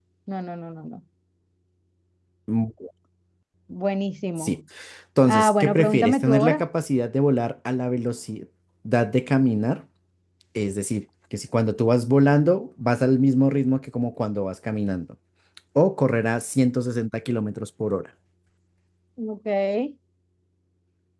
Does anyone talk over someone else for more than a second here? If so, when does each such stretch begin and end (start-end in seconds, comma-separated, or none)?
5.3-6.6